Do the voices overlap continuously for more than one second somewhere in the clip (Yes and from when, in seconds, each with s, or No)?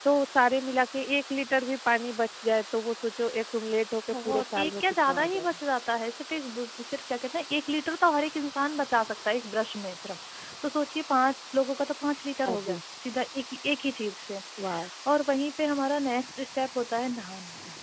Yes, from 4.1 s